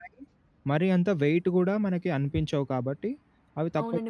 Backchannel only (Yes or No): No